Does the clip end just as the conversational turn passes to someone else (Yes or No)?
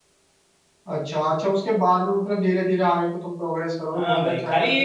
Yes